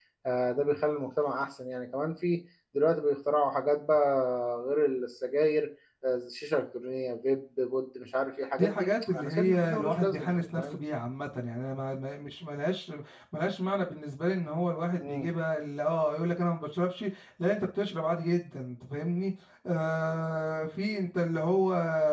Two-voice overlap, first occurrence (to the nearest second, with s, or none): 9 s